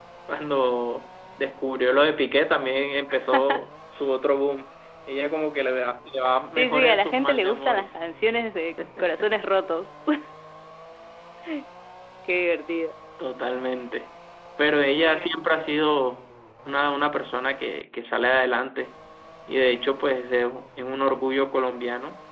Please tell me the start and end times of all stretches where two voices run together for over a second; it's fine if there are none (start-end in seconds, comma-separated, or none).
6.6-7.9